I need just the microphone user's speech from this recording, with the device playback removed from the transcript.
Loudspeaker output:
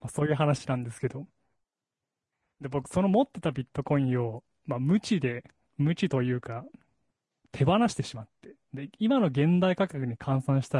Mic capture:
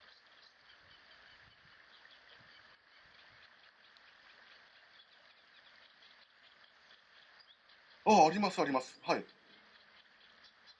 ああ、あります、あります。はい。

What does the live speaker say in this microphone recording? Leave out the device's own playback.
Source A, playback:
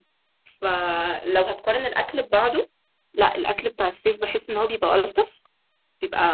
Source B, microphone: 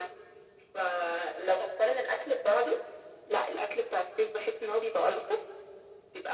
none

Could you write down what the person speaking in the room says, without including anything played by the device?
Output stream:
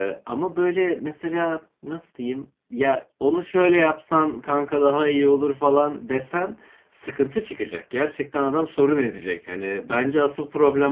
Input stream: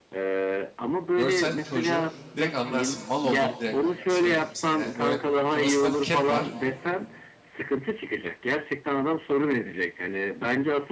Görsen çocuğu direkt anlarsın. Mal olduğunu direkt anlarsın. Öyle diyeyim sana. Yani böyle kafasında bir kep var.

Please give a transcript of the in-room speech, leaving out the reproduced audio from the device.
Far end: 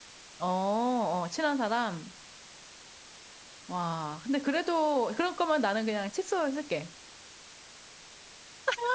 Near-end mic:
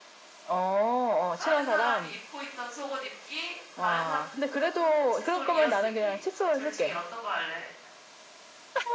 다른 사람이 입고 있던 속옷 입기, 다른 사람이 방금 쓴 칫솔 이어쓰기. 둘 중에 어떤 거 할래?

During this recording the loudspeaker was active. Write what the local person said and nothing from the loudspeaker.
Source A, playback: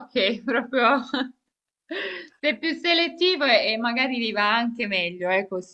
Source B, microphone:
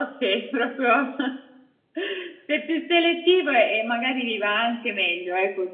none

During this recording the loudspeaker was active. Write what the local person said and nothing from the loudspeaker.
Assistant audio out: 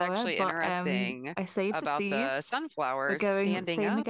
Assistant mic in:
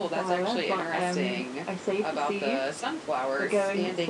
none

